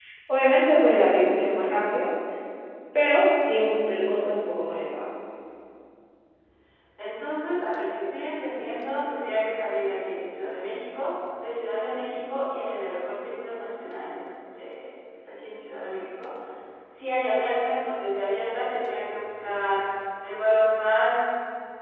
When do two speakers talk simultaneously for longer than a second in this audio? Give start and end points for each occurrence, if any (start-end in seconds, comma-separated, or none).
none